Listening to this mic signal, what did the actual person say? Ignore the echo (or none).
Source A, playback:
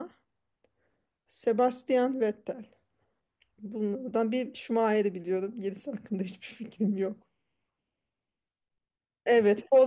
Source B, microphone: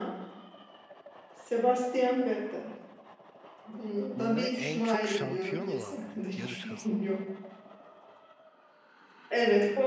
Bu ne? En çok şampiyon olan mı? Yarış kazan.